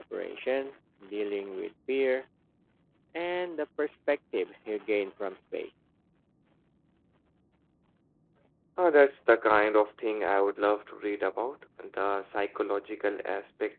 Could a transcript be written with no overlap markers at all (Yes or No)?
Yes